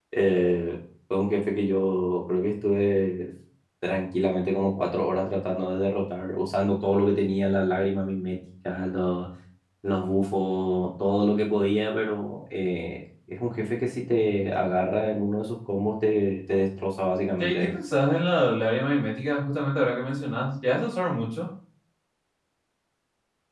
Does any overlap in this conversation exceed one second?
No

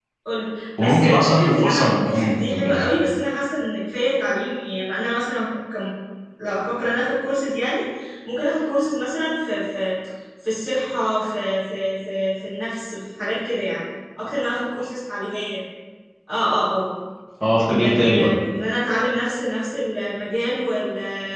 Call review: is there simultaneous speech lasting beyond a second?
Yes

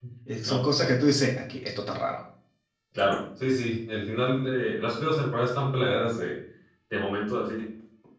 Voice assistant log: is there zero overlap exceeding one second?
Yes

